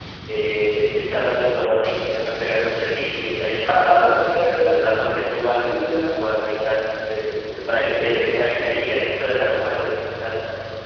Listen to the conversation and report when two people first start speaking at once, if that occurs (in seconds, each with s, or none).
3.6 s